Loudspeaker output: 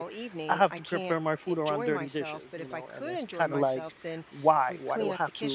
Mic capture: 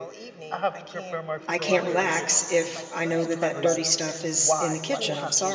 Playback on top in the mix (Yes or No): No